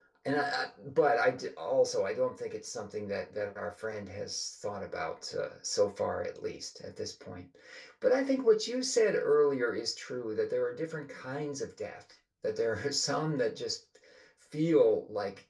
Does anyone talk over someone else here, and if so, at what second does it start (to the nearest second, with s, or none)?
none